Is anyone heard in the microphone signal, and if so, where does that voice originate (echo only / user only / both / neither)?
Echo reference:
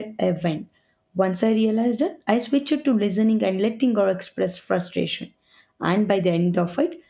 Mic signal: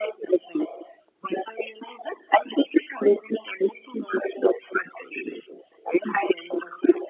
echo only